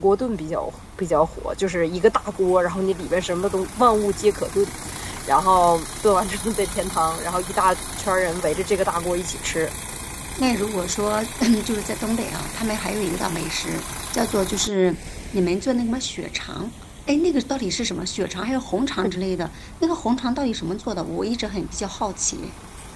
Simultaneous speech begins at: none

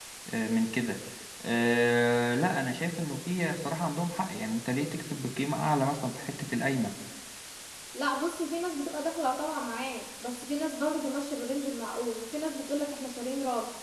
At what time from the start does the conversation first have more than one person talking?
none

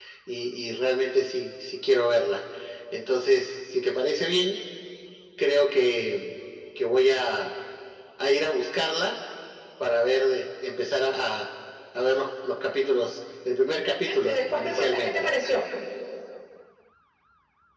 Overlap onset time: 14.0 s

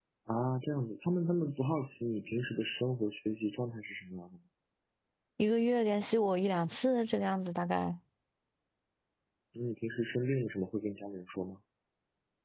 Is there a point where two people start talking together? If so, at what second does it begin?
none

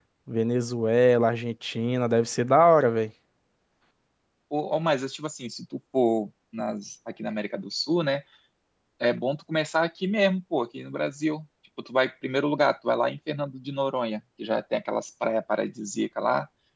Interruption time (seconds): none

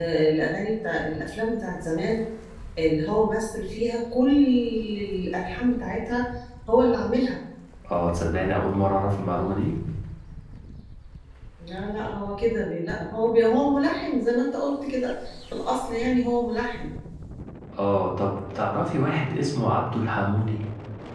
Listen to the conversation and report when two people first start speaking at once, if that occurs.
none

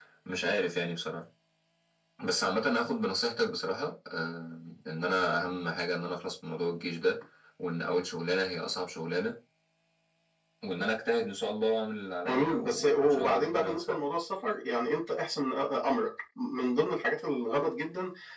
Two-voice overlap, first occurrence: 12.2 s

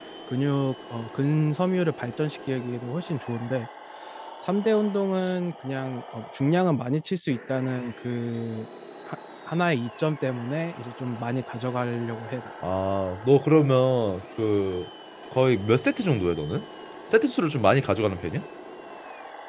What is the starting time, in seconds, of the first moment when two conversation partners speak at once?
none

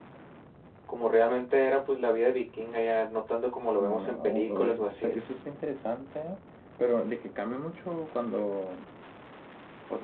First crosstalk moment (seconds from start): 3.8 s

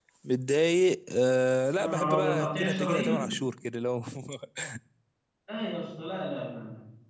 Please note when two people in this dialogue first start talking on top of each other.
1.8 s

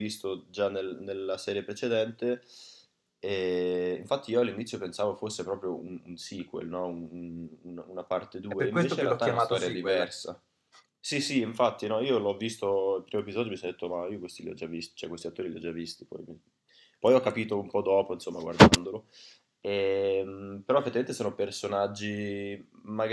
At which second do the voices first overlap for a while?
8.5 s

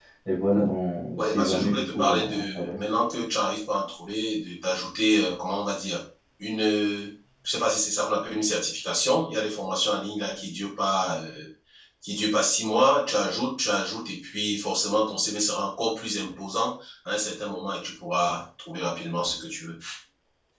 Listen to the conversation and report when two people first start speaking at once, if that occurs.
1.2 s

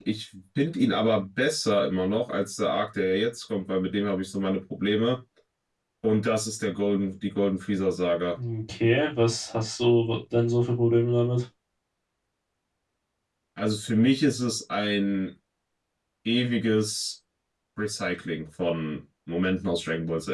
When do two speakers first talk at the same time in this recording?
none

